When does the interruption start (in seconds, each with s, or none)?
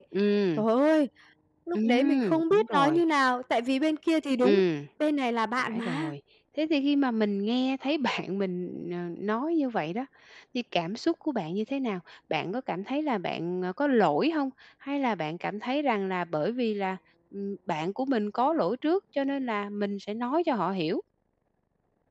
1.7 s